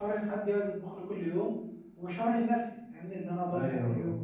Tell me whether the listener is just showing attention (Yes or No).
No